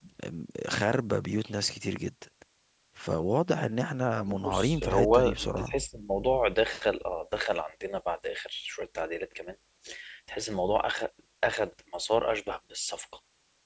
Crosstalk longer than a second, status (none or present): present